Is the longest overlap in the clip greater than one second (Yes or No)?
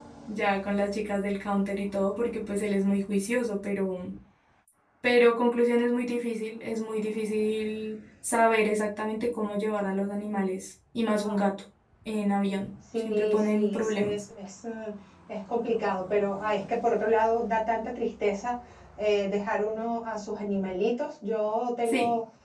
Yes